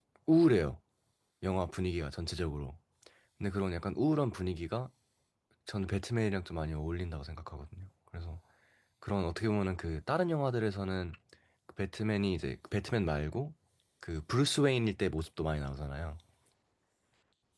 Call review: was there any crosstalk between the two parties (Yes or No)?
No